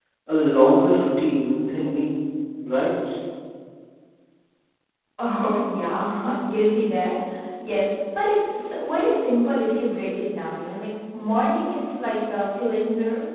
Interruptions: none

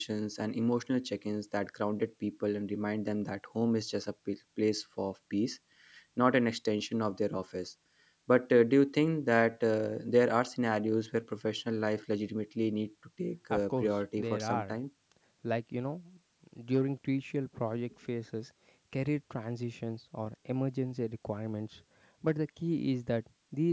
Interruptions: present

